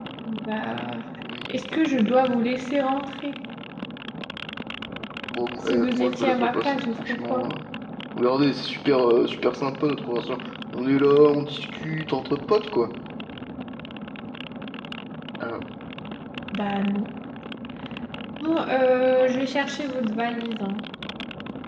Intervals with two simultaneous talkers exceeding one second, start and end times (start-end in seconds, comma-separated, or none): 5.6-7.4